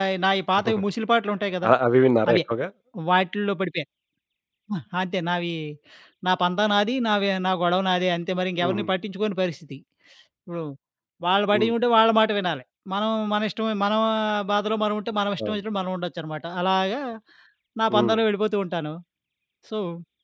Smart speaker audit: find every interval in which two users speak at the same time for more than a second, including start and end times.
none

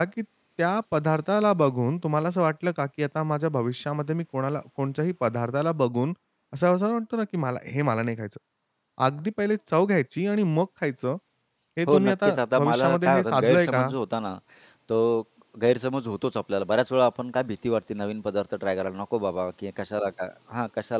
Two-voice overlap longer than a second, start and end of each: 11.9-13.9

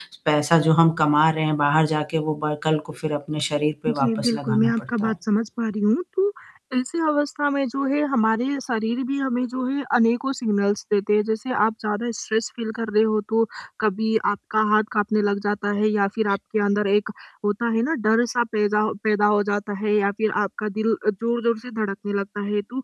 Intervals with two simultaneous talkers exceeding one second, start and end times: 3.9-5.2

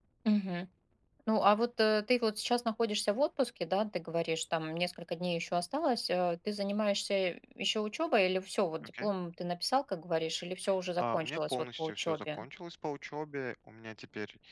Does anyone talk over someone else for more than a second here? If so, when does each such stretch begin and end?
11.0-12.4

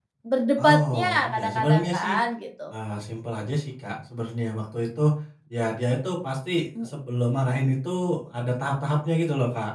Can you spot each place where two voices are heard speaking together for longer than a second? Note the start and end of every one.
0.6-2.1

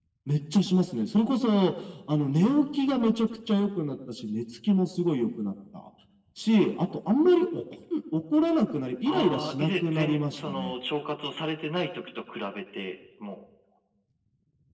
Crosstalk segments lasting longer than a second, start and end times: 9.1-10.8

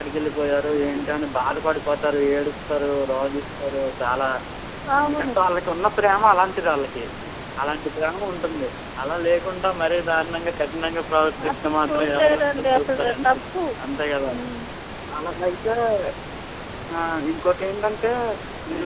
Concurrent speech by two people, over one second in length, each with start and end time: 11.5-13.3

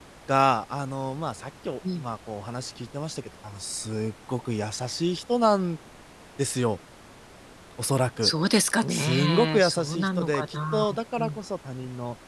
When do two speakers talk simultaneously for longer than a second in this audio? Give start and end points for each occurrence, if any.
8.9-11.4

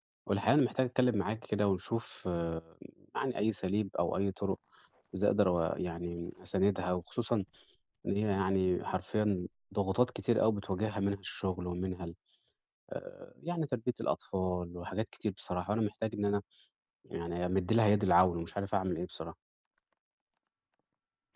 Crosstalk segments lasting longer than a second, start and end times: none

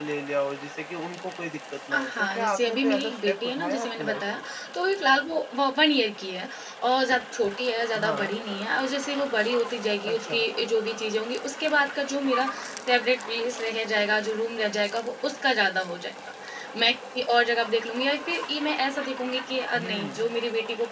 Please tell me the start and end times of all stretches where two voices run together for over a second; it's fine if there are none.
1.9-4.4

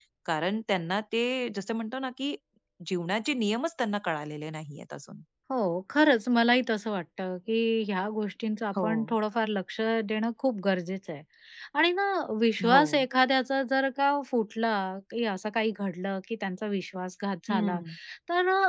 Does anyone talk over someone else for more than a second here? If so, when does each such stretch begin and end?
none

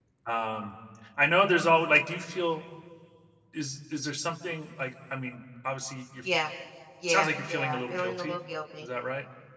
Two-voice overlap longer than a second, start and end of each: 7.1-8.4

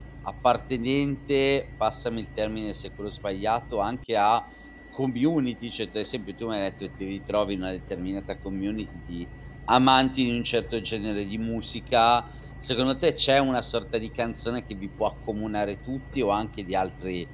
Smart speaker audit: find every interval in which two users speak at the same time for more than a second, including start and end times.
none

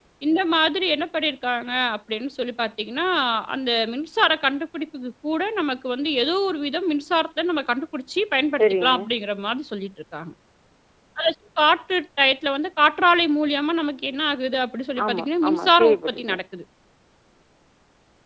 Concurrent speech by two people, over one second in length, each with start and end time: 15.0-16.4

